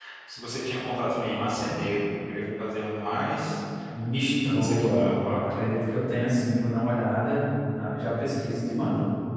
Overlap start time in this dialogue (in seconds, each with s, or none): 4.1 s